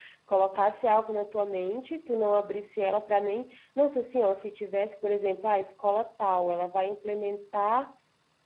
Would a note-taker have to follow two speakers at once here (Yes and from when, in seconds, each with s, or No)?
No